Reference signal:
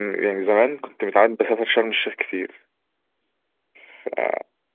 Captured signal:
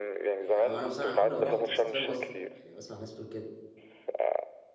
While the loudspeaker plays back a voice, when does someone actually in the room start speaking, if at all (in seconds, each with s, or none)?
0.4 s